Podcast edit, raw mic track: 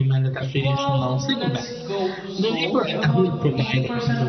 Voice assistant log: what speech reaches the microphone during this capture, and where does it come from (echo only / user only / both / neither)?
both